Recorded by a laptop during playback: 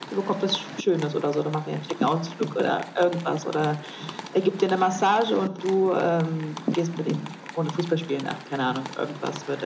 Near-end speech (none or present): none